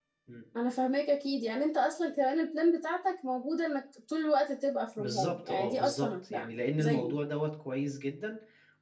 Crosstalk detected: Yes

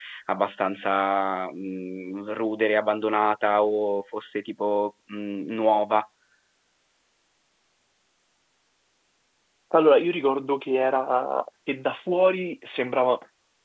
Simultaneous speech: No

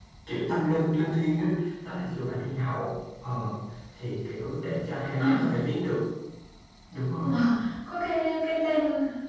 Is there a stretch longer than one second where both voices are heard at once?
No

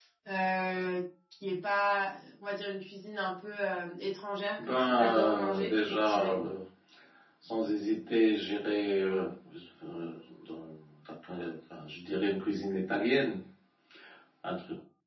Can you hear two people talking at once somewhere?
Yes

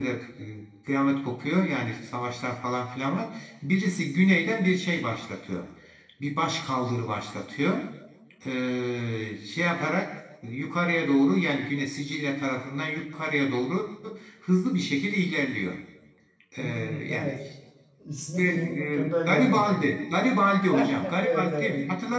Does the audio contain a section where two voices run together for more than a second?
Yes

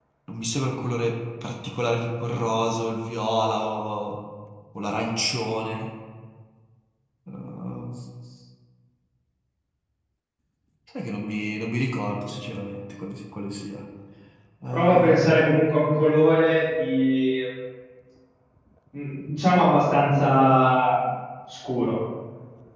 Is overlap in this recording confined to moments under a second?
Yes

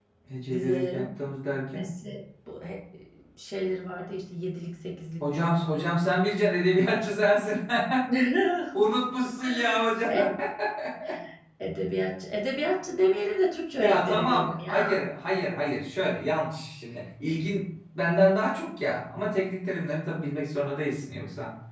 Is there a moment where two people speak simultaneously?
Yes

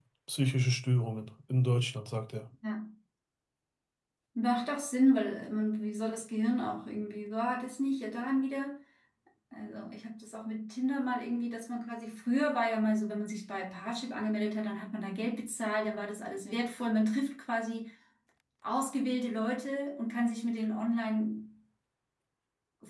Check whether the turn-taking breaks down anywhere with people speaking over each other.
No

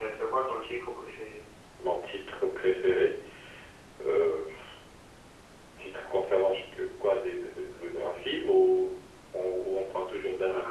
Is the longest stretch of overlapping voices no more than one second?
Yes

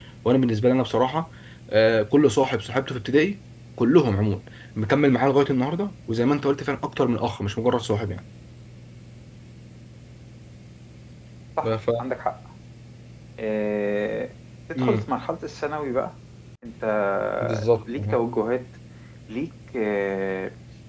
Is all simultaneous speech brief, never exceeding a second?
Yes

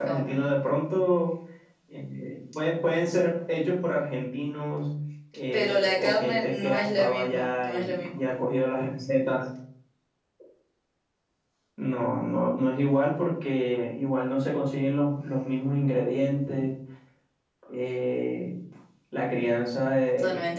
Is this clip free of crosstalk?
No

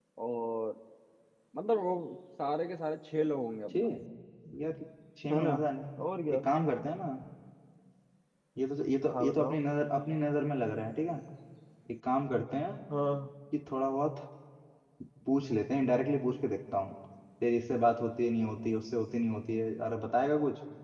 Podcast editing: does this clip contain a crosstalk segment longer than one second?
No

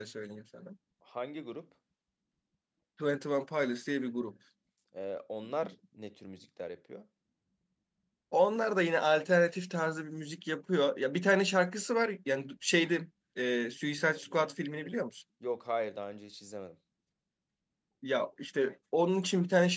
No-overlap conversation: Yes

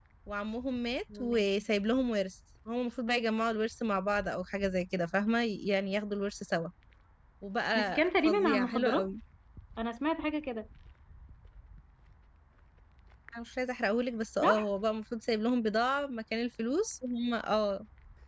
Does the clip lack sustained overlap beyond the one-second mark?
No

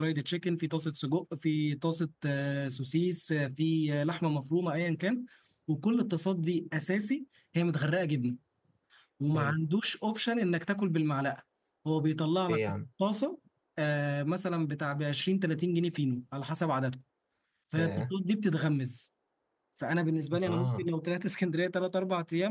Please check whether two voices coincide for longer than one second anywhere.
No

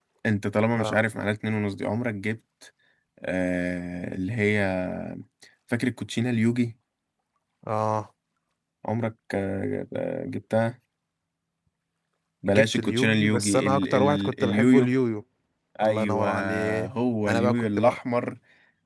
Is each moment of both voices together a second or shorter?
No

